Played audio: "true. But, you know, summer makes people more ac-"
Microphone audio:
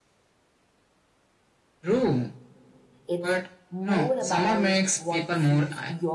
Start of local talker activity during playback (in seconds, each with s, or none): 3.1 s